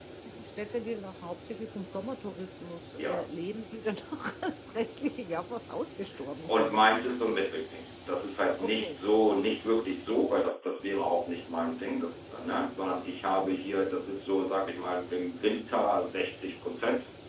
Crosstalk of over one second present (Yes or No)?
No